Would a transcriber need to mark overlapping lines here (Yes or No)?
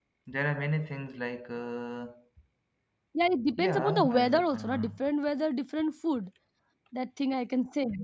Yes